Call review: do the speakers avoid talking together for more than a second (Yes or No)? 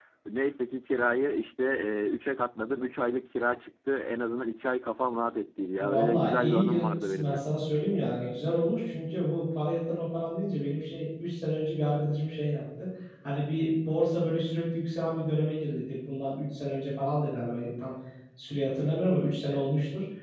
No